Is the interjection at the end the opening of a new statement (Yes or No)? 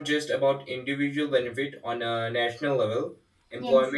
No